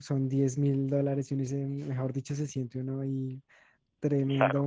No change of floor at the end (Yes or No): Yes